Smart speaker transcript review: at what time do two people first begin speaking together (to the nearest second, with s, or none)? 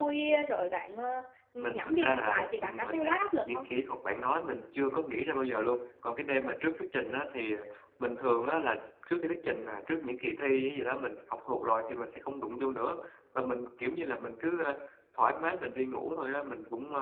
2 s